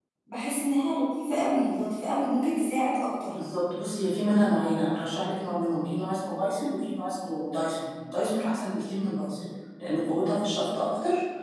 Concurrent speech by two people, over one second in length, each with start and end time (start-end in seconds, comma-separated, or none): none